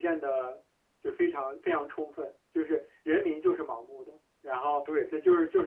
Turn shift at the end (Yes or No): No